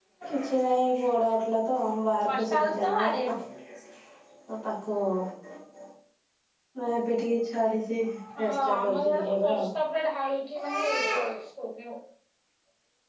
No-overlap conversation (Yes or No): No